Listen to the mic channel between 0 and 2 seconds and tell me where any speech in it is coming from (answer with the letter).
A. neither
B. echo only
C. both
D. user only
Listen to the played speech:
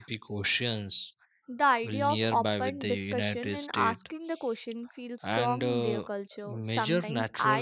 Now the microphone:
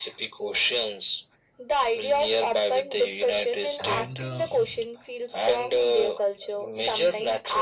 B